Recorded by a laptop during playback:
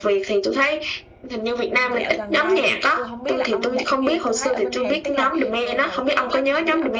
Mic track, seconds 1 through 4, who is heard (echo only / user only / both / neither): both